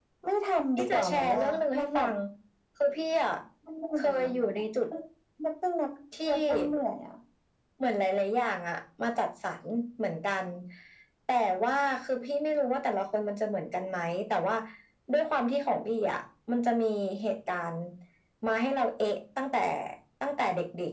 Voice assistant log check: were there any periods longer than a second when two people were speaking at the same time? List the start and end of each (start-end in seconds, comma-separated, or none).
0.8-2.1